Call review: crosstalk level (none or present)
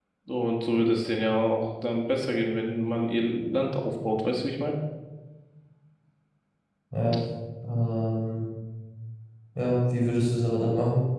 none